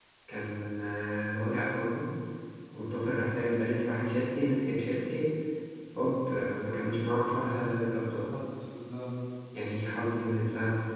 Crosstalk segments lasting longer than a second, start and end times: none

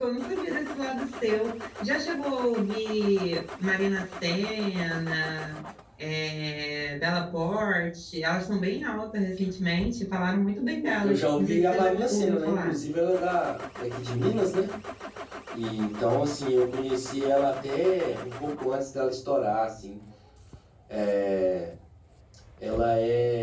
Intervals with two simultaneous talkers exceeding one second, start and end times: 11.0-12.8

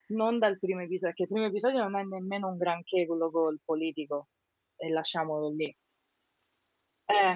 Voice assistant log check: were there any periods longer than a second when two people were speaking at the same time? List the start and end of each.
none

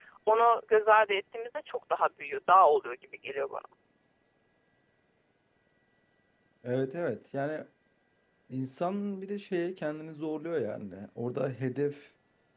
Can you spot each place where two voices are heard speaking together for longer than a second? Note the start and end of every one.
none

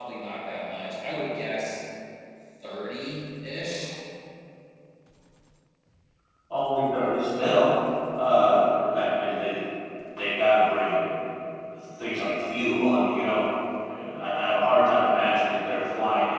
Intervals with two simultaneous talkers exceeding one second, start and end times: none

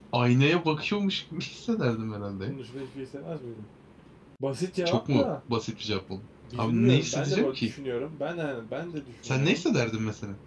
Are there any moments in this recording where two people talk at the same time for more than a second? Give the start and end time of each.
6.5-7.7

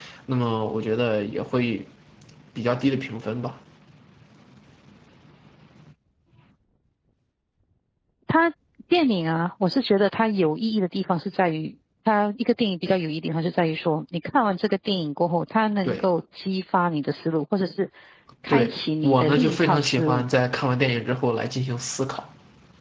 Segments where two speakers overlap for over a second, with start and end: 18.5-20.2

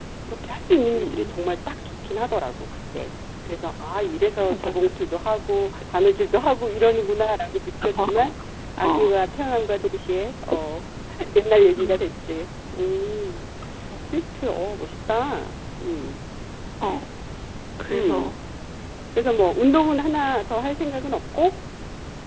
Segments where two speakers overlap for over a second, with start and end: none

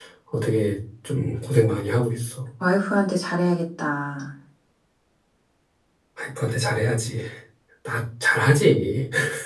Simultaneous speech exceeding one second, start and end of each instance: none

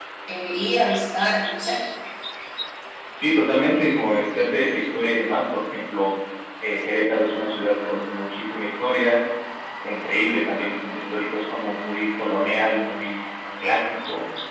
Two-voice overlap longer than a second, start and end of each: none

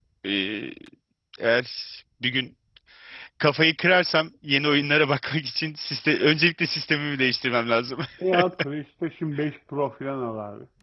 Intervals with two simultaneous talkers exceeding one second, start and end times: none

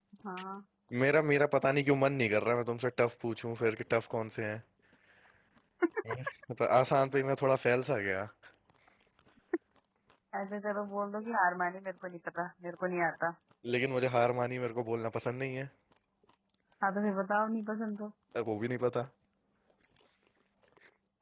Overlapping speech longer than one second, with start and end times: none

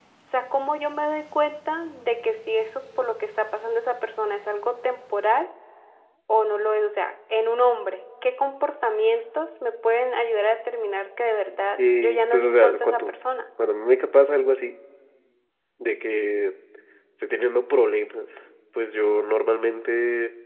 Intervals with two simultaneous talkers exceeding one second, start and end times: 11.8-13.1

